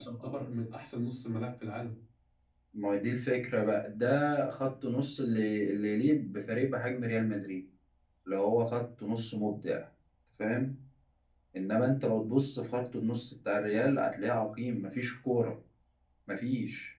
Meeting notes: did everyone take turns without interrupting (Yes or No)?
Yes